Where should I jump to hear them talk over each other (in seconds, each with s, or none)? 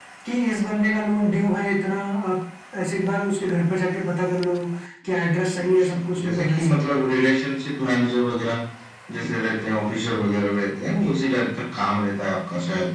5.4 s